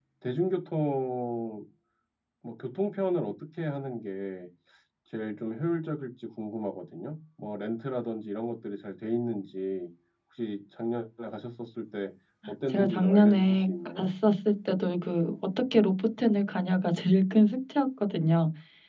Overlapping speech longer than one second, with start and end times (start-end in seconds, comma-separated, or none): 12.7-14.1